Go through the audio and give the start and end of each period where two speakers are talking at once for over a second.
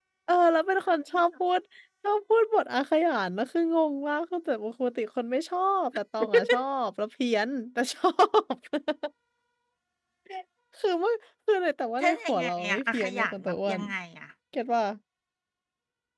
12.0-13.8

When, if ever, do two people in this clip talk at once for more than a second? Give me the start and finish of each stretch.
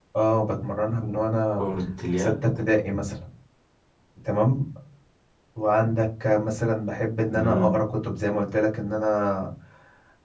none

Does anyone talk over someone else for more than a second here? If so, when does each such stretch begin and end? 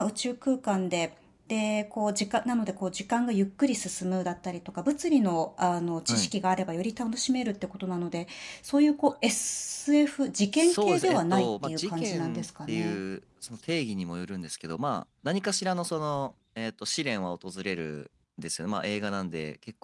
10.5-13.0

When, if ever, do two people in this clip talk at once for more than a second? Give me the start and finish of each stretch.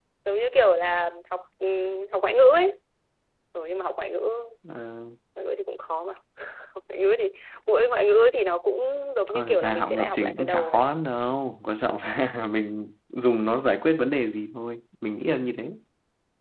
9.3-10.8

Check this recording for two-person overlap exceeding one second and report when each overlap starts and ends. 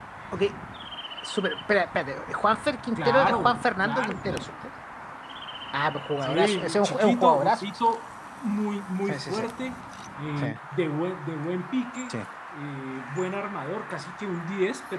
3.0-4.5, 6.2-7.6

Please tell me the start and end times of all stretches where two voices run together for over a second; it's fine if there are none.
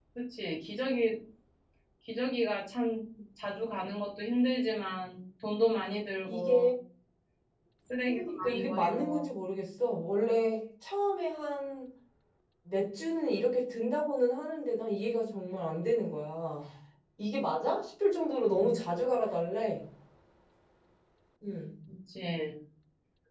8.1-9.3

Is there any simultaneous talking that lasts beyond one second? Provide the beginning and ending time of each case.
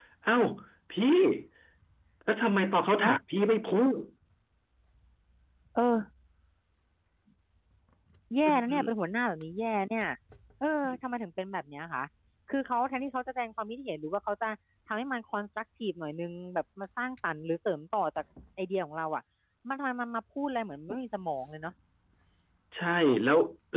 none

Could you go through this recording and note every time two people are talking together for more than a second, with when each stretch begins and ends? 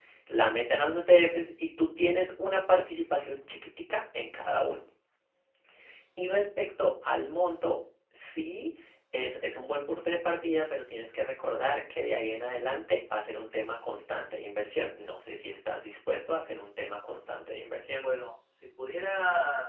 none

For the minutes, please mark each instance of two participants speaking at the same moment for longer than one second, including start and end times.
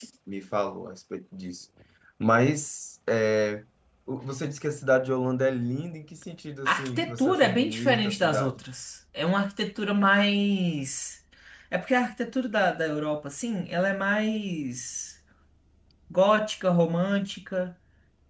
6.6-8.6

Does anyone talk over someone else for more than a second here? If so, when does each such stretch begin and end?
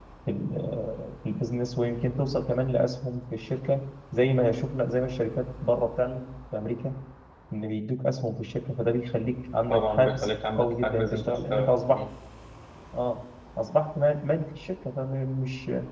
9.7-12.0

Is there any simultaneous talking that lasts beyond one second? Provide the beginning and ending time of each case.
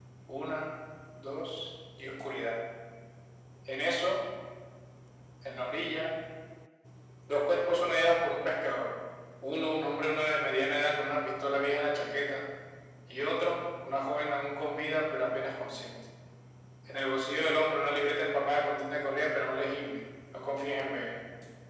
none

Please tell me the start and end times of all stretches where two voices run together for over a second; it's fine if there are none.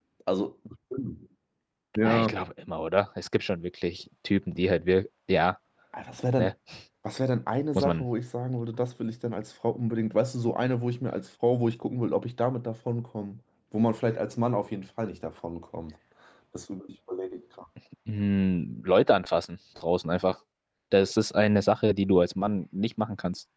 none

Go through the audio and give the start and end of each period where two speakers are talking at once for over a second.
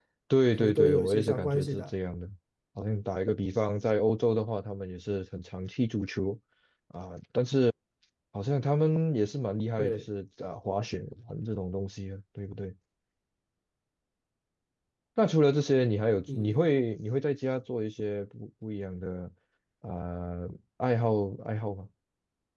0.6-1.8

